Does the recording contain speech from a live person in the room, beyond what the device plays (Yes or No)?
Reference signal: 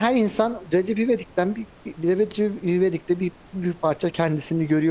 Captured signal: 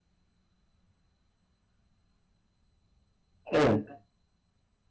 Yes